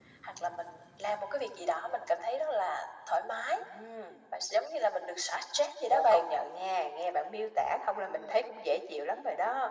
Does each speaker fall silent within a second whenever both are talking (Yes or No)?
Yes